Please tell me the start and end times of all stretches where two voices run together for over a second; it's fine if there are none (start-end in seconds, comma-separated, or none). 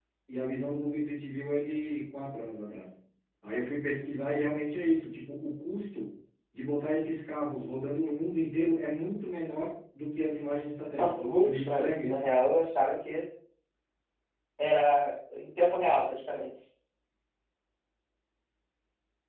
11.0-12.4